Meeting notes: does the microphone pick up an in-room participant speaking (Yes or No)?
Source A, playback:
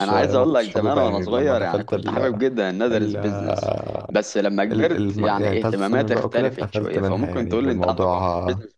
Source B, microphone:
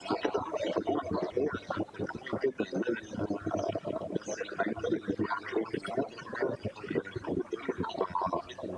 No